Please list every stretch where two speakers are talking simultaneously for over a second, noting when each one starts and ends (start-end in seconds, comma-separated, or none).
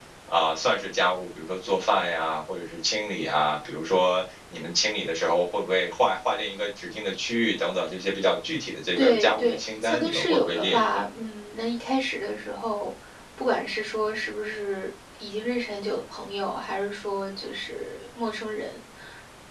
9.0-11.0